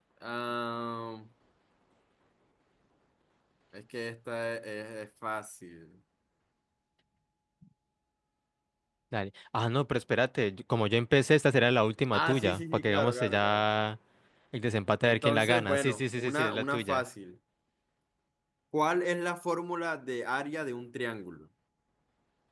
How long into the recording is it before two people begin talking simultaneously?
12.1 s

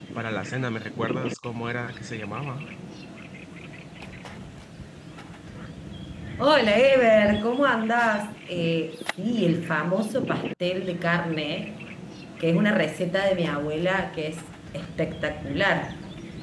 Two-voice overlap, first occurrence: none

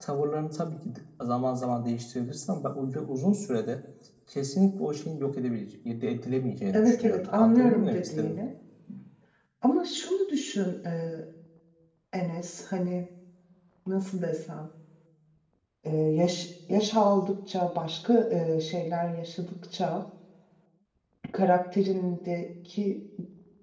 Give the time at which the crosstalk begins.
6.7 s

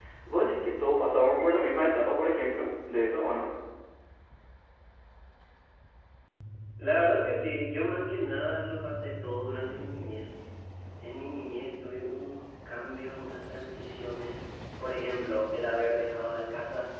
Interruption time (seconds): none

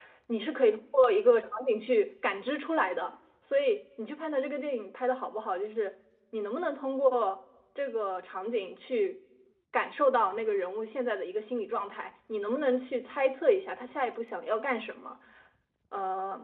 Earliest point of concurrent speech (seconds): none

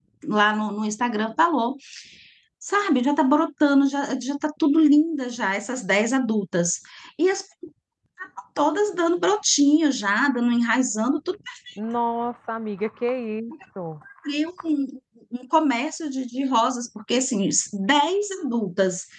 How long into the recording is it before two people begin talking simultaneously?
none

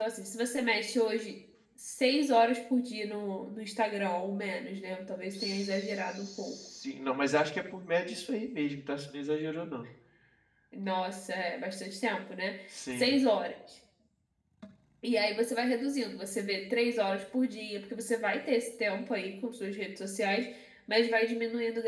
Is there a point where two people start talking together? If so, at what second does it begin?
5.3 s

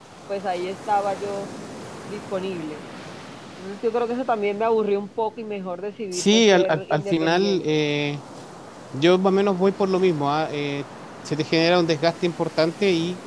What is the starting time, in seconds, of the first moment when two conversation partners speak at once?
6.1 s

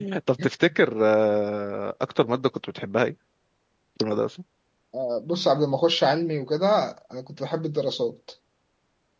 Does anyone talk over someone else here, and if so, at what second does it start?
none

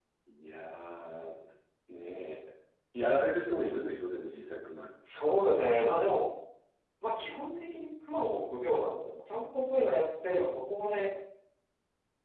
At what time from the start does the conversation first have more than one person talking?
none

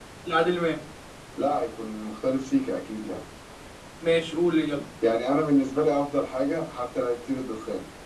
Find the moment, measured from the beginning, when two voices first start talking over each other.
none

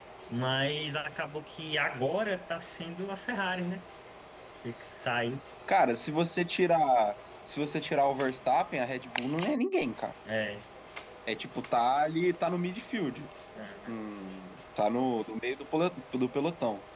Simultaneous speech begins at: none

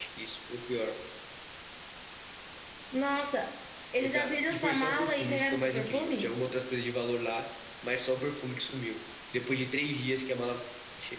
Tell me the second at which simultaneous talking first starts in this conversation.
4.0 s

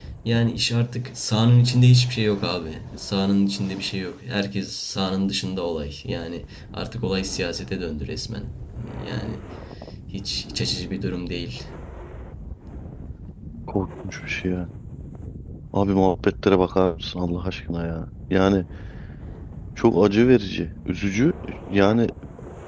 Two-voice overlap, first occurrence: none

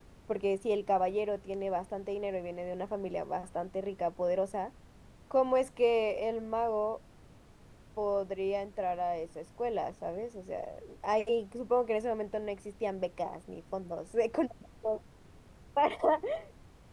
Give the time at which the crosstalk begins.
none

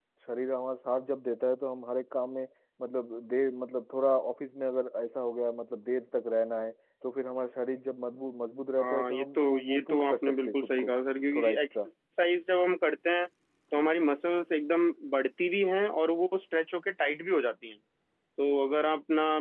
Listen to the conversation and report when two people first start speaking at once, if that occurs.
8.8 s

